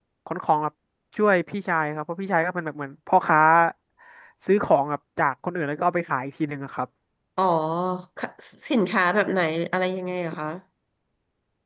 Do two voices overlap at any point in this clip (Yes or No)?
No